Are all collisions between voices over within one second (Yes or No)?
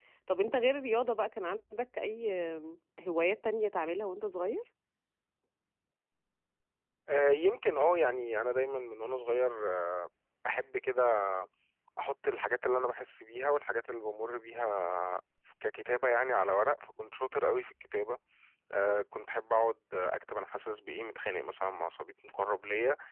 Yes